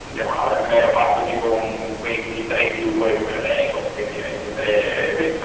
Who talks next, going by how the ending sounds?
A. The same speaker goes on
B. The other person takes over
A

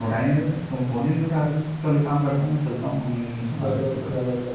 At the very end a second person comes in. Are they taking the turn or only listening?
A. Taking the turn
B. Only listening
A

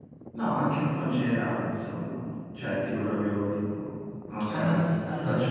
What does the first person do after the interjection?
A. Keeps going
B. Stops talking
B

